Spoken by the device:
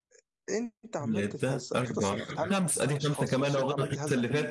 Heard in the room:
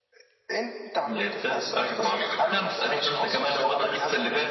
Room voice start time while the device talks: none

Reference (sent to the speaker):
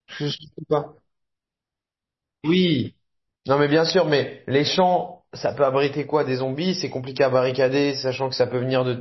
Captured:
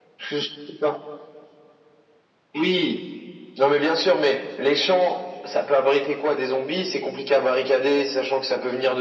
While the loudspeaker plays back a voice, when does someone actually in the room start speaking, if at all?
none

